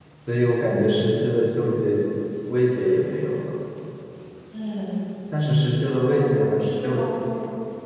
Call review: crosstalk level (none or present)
present